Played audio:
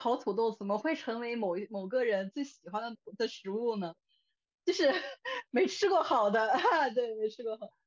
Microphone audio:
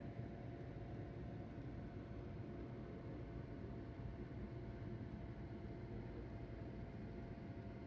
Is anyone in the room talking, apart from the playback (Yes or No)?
No